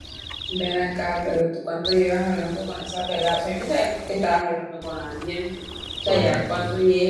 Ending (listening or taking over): listening